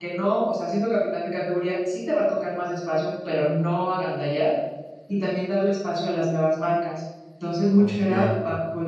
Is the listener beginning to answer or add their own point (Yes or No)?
No